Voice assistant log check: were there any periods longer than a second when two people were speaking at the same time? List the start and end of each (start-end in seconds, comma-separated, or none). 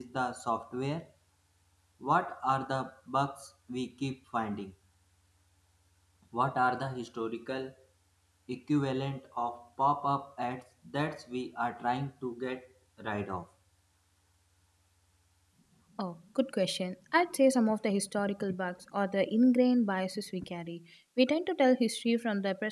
none